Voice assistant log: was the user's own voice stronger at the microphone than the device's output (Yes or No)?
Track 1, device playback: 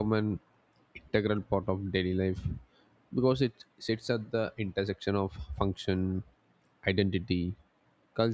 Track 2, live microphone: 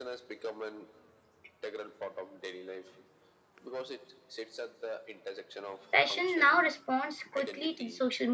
Yes